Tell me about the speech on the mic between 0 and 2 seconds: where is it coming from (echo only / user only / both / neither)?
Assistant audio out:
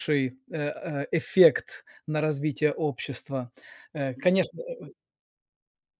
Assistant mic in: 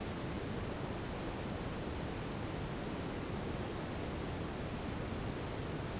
neither